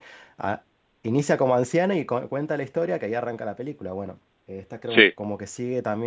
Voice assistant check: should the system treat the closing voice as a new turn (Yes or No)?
No